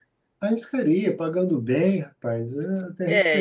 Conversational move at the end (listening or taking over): taking over